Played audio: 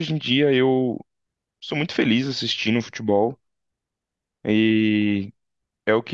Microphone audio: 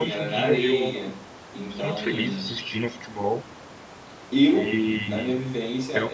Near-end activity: present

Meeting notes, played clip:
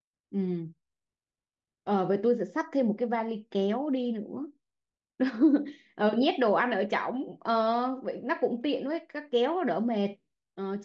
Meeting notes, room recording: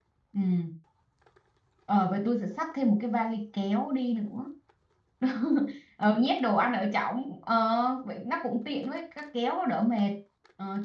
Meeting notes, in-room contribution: none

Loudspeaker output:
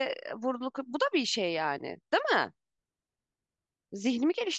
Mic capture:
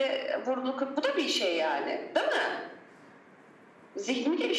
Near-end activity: none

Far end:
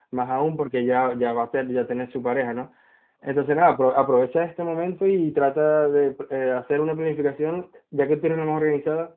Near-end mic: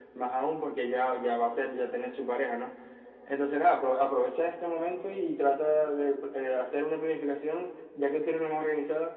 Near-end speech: none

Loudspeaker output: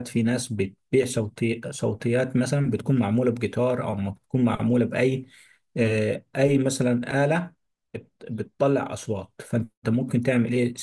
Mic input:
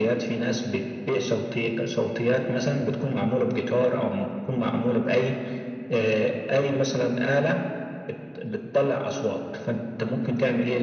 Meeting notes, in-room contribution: none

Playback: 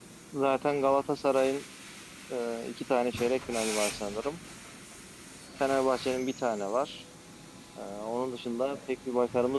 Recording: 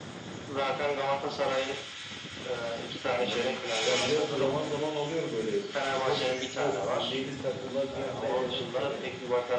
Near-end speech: present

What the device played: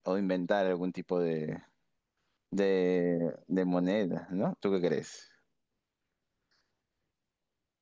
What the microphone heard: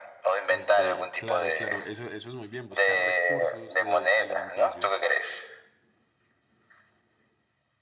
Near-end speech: present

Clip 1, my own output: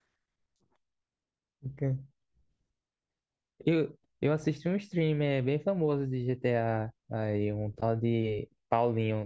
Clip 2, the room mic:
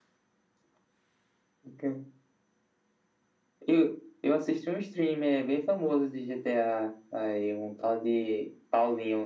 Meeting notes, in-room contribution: none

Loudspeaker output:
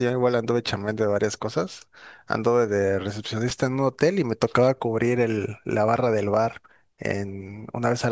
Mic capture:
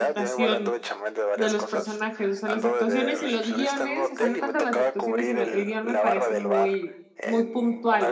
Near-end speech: present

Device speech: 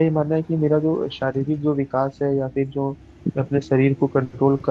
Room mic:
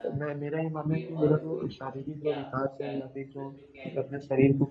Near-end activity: present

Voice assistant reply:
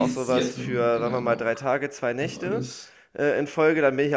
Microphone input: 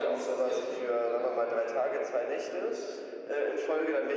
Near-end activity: none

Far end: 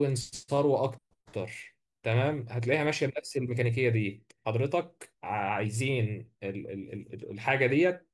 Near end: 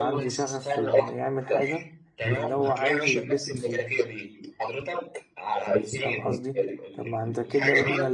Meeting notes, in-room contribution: present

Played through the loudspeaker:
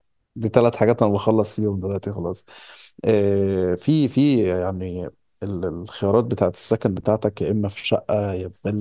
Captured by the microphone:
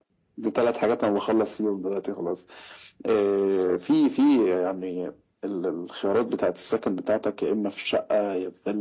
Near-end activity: none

